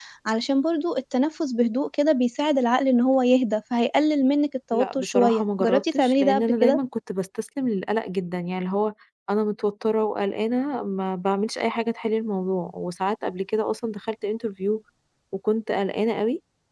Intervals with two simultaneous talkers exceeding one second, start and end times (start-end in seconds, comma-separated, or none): 4.7-6.8